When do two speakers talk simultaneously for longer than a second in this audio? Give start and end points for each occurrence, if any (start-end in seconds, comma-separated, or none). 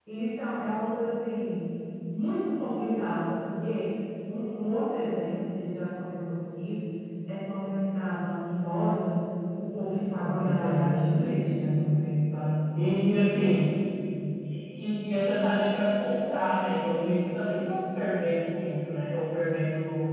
10.1-11.4